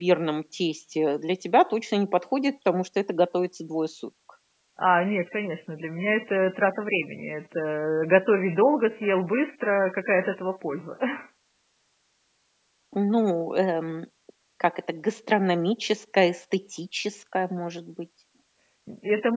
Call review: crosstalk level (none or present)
none